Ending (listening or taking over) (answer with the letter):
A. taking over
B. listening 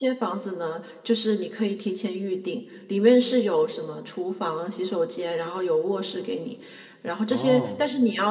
B